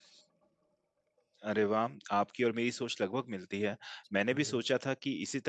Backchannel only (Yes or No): Yes